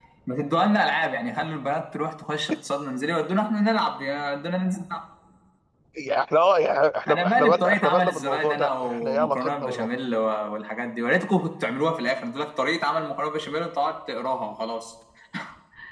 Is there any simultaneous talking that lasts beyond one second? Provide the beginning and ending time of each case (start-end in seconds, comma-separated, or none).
7.1-9.9